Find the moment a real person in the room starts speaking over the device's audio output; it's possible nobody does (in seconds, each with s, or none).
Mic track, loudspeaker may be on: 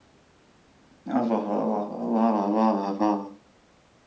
none